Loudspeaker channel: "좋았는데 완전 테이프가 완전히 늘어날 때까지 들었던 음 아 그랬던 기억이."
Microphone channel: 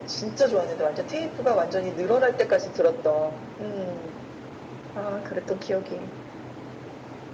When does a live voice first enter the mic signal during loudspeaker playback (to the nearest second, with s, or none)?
none